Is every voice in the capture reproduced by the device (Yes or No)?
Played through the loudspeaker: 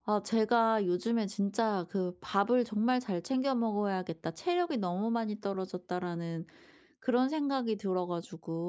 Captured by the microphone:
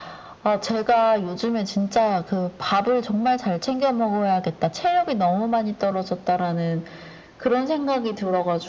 Yes